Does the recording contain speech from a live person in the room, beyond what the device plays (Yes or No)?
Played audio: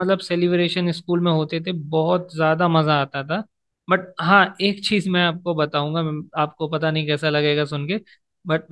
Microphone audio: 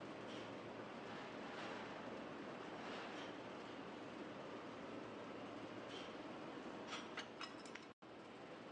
No